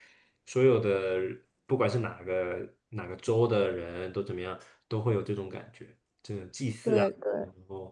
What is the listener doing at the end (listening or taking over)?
taking over